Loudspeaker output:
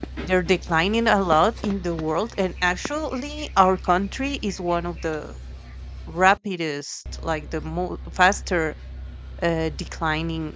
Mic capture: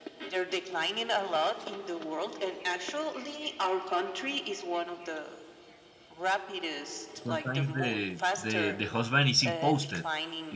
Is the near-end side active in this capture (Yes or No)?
Yes